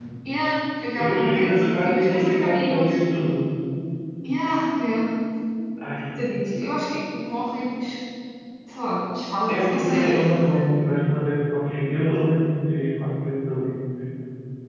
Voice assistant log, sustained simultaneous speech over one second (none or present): present